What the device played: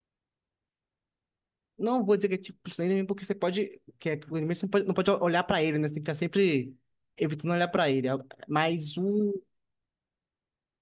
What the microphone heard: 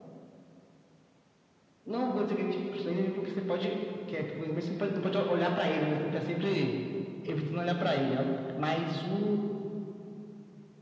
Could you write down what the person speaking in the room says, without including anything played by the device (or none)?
none